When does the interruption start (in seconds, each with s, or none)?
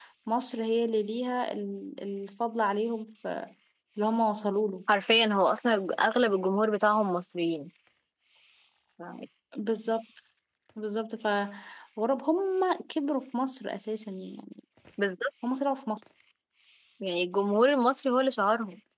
none